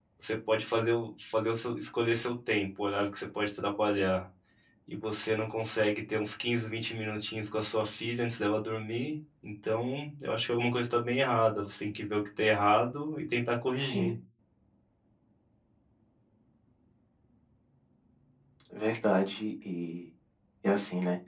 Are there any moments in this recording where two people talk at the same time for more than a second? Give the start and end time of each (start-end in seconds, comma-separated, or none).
none